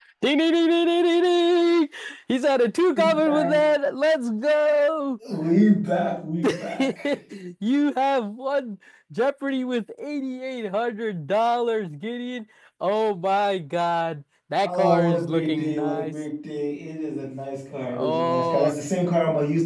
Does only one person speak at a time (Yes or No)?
No